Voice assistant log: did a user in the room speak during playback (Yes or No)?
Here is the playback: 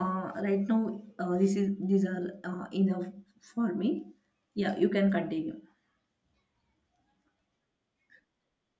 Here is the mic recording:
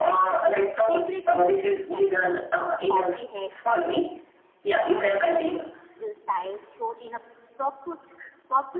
Yes